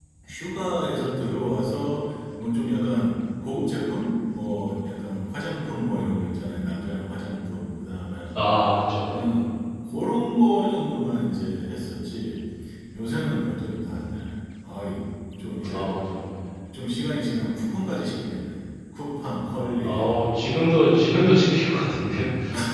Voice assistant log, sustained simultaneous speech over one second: none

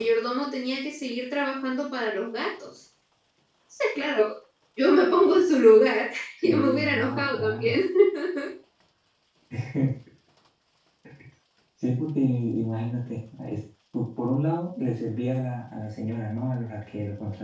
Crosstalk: present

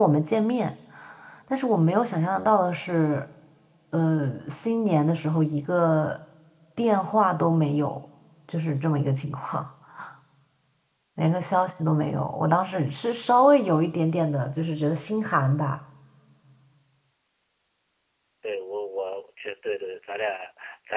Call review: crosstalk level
none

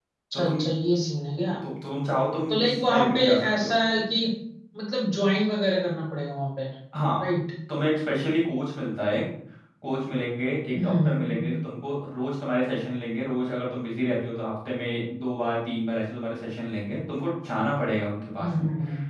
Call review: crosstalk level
present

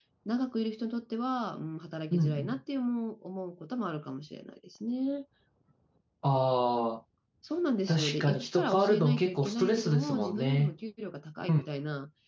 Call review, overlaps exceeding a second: present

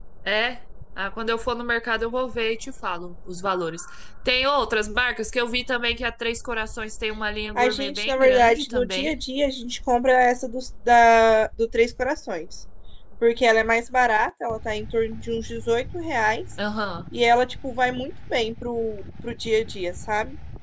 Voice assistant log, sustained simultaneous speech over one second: present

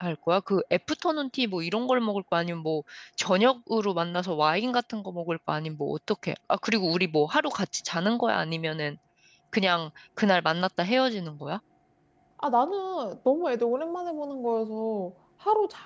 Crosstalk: none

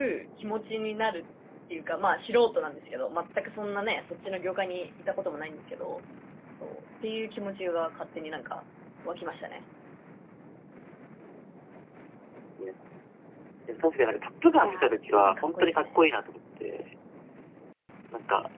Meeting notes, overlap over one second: present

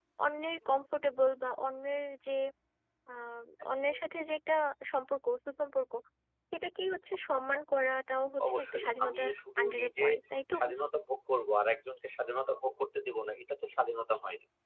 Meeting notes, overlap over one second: present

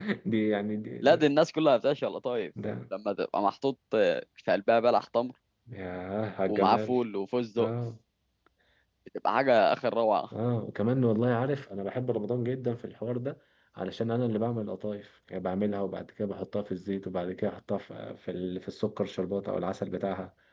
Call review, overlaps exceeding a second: none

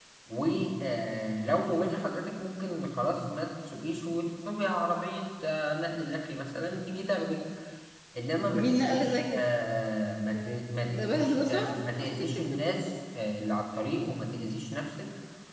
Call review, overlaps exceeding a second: present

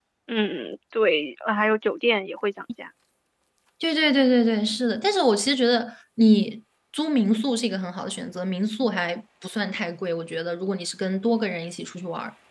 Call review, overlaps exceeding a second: none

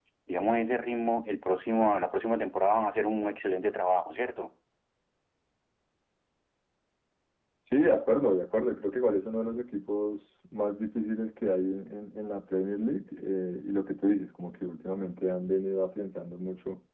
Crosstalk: none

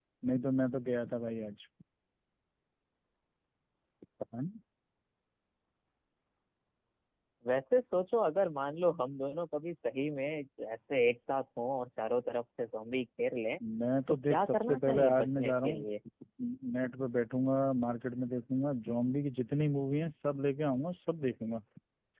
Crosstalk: present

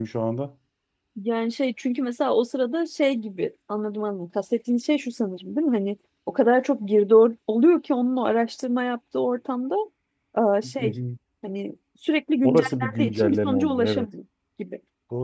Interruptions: present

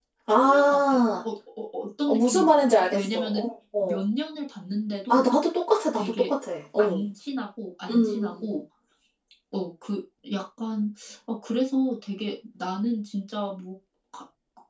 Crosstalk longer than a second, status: present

